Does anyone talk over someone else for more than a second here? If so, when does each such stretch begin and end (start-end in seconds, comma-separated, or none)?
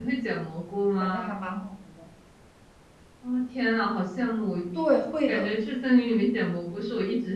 none